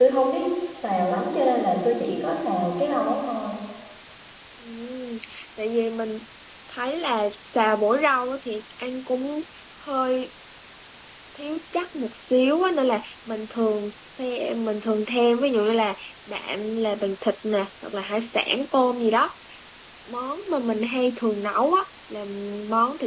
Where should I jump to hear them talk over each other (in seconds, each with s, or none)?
none